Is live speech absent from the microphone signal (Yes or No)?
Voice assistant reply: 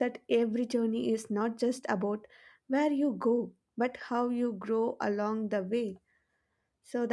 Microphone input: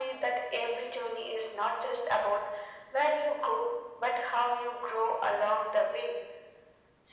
Yes